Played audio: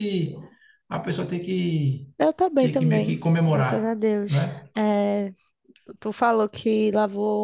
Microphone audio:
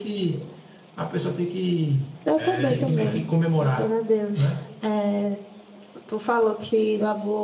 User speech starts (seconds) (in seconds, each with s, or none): 2.4 s